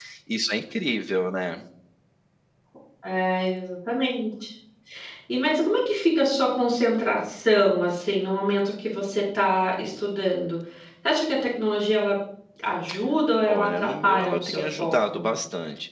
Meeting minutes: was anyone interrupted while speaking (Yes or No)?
Yes